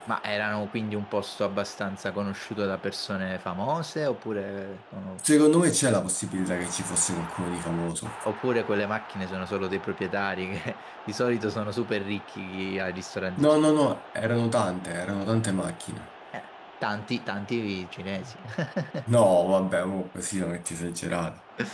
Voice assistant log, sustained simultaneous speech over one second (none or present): none